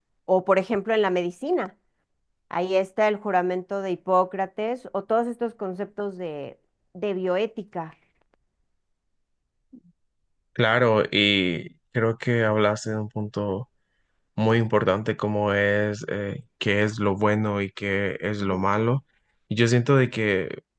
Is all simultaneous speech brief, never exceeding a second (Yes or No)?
Yes